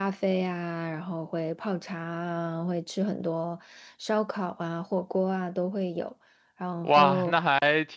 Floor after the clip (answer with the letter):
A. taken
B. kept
A